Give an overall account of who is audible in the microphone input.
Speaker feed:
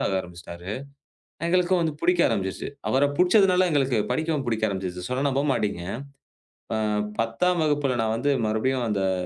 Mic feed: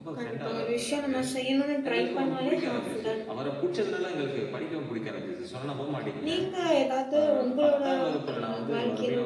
both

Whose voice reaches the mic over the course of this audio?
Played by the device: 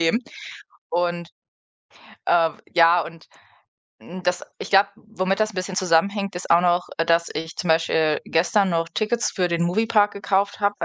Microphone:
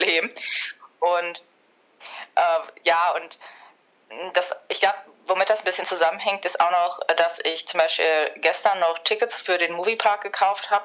echo only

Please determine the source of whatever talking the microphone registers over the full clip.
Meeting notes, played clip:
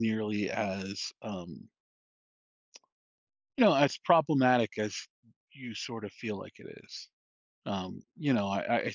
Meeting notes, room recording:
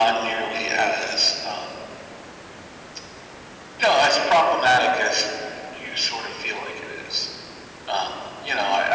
echo only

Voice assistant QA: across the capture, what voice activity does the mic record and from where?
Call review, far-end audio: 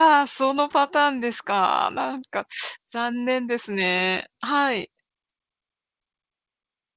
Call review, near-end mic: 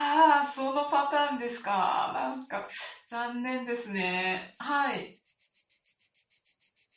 echo only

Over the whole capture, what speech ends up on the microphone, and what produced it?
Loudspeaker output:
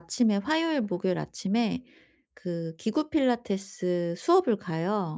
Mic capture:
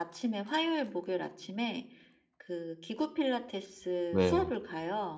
both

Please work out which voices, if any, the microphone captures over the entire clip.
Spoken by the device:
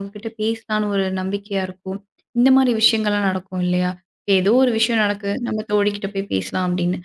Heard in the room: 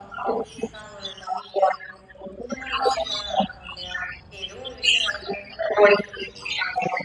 echo only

